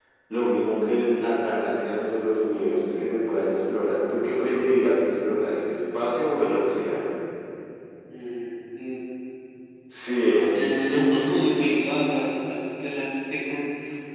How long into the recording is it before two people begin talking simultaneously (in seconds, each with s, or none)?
none